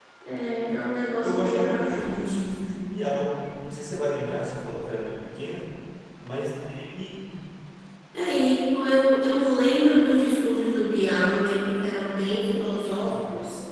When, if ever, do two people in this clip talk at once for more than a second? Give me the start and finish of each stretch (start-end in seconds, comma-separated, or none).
1.2-2.4